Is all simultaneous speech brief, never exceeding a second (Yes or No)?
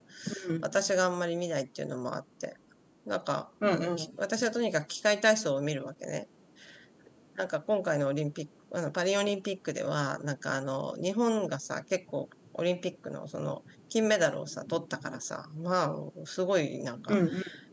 Yes